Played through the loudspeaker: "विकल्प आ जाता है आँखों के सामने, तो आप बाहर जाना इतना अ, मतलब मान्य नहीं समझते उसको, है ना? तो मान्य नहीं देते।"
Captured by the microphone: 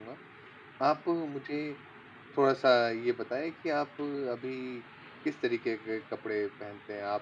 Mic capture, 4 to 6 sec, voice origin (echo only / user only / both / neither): user only